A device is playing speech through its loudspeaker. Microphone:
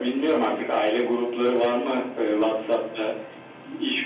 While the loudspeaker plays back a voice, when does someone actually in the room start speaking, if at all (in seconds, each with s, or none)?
none